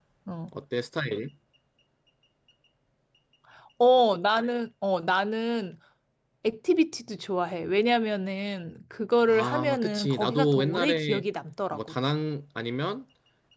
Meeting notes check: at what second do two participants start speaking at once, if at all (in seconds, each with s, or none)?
9.3 s